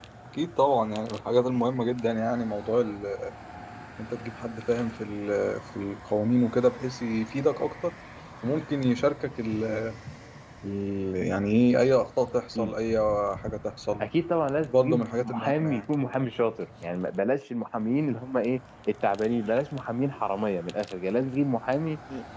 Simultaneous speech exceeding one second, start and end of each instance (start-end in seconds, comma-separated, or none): 14.6-15.9